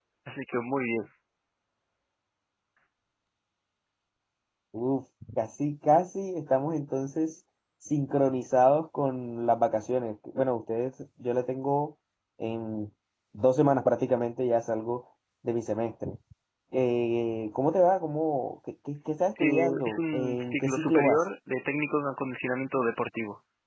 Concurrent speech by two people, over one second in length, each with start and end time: 19.4-21.2

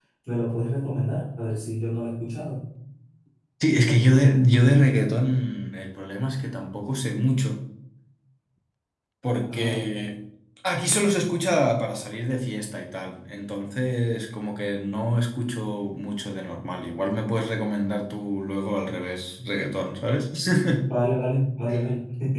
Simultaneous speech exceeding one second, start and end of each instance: none

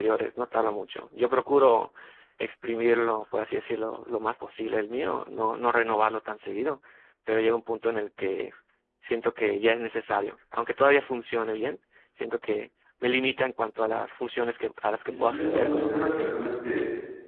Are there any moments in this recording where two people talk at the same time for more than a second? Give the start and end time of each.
15.0-16.5

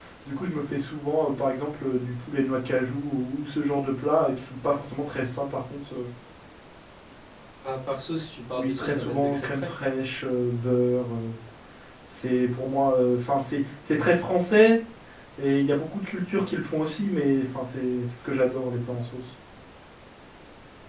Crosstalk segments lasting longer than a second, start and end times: 8.5-9.8

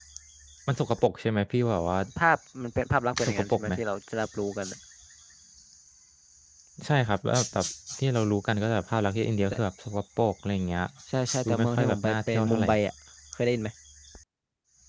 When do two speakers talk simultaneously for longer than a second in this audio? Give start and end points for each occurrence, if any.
11.4-12.7

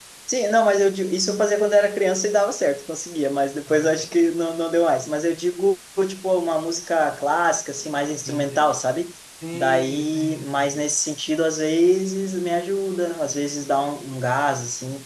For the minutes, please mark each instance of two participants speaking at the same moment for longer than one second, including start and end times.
9.5-10.8

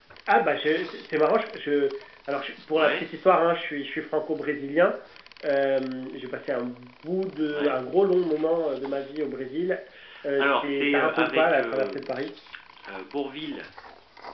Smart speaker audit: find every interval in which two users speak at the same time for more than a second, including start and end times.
10.4-12.0

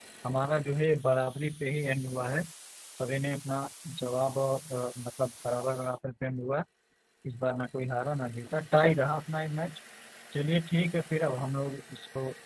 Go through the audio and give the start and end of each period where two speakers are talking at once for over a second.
none

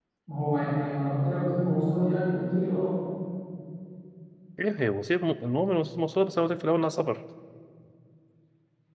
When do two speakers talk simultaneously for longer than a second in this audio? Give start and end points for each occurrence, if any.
none

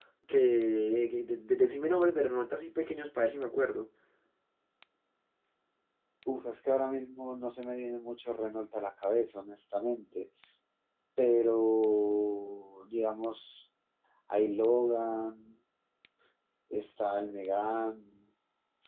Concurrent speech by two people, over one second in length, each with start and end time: none

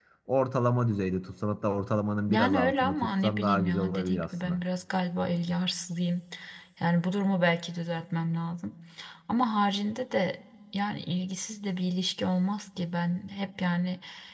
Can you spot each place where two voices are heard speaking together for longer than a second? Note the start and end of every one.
2.3-4.6

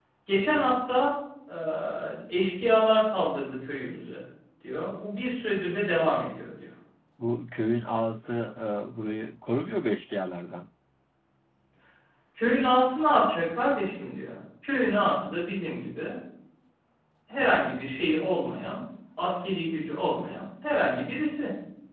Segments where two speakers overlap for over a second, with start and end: none

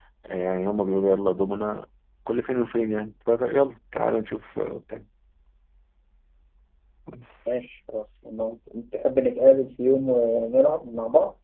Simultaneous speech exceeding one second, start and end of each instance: none

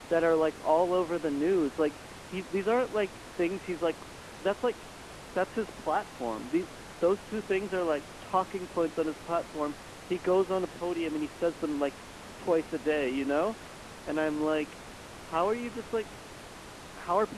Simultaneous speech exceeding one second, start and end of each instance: none

